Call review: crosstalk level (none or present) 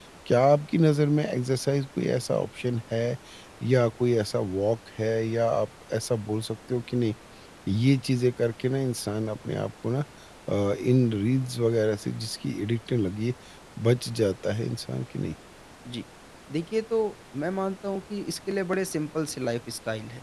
none